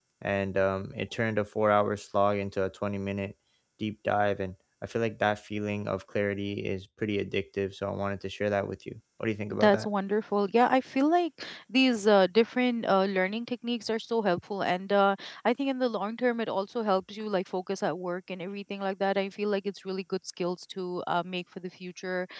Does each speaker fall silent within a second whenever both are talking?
Yes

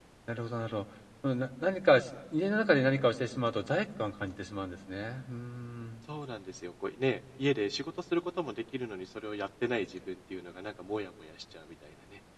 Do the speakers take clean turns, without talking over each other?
Yes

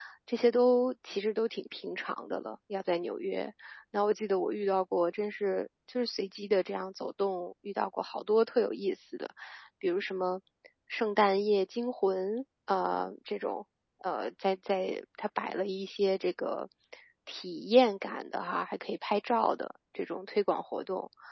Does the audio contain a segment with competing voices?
No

